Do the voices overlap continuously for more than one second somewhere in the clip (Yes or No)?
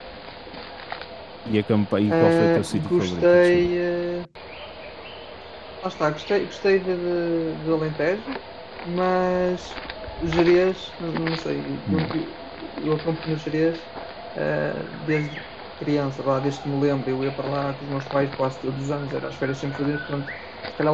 Yes